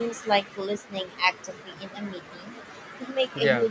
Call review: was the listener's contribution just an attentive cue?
Yes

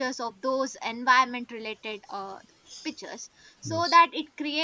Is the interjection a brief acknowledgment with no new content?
Yes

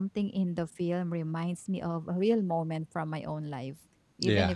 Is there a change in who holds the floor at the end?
No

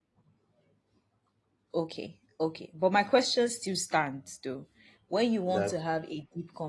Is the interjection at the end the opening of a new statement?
No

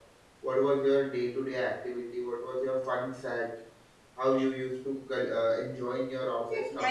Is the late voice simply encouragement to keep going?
No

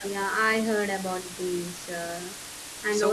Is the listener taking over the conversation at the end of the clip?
No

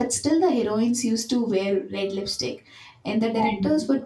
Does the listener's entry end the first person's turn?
No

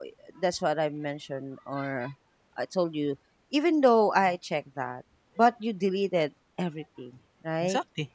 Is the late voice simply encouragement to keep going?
Yes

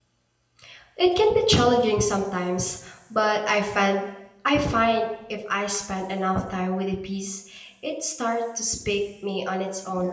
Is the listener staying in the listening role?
No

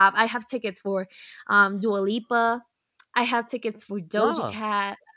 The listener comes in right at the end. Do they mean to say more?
No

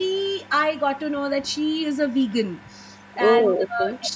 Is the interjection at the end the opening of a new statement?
No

